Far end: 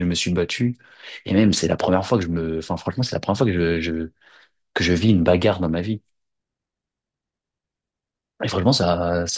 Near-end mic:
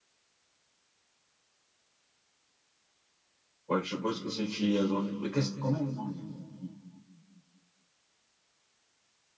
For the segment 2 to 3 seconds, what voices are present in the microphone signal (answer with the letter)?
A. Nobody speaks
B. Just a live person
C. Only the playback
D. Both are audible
A